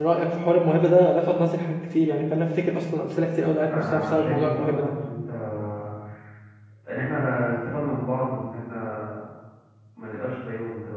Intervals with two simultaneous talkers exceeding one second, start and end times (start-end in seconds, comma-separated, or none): 3.7-4.9